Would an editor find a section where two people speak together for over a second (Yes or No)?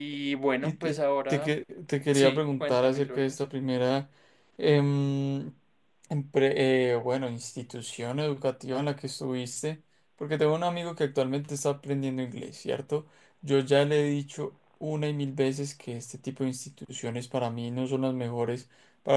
Yes